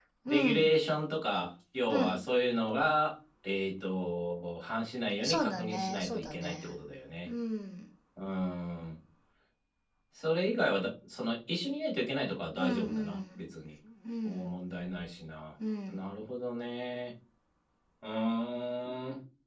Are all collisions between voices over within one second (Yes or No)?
No